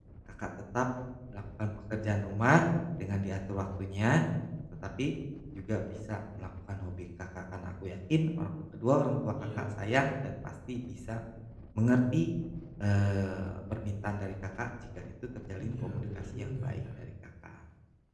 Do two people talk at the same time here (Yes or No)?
Yes